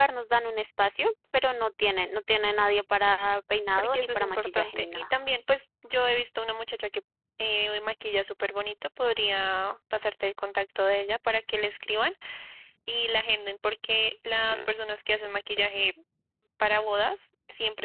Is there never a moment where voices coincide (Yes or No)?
No